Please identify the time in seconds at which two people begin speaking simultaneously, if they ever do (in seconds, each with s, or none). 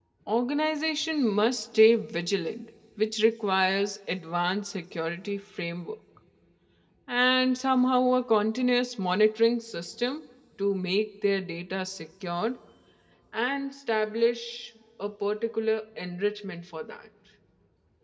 none